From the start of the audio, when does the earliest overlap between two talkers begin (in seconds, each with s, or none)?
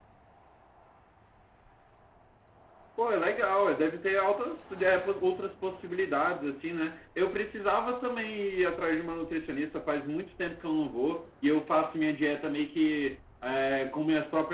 none